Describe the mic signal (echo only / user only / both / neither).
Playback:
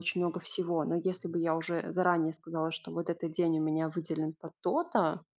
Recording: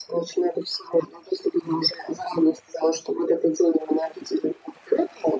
echo only